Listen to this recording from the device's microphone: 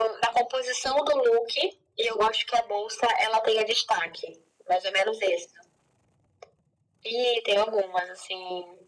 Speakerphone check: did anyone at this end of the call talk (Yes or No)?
No